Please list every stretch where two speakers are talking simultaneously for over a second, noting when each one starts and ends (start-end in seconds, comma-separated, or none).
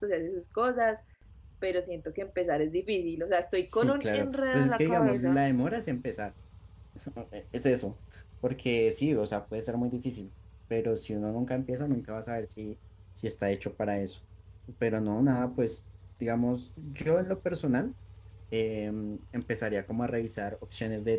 3.6-5.4